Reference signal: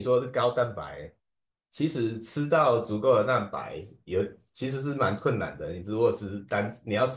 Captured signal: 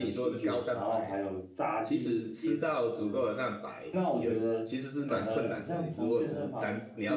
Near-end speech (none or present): present